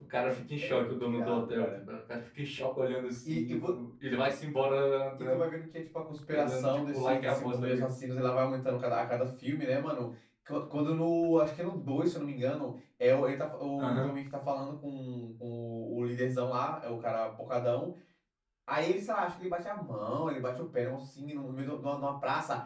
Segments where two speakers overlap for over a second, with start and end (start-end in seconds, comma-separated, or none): 0.6-1.8, 6.3-7.9